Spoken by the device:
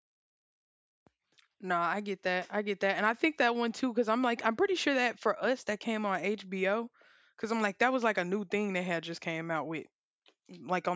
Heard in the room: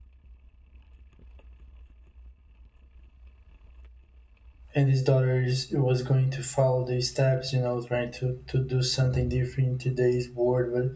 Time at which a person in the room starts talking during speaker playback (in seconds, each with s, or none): 4.7 s